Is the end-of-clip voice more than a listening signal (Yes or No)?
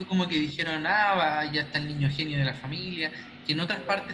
No